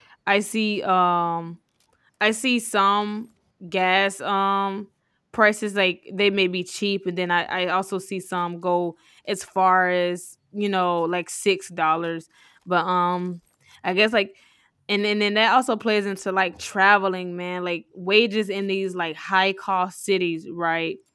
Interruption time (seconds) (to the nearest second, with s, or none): none